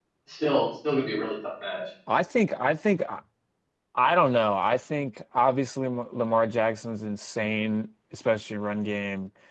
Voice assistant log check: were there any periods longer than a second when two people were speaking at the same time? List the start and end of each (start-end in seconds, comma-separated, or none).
none